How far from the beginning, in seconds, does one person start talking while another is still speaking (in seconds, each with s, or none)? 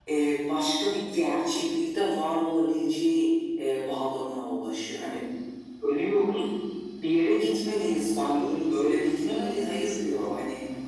8.3 s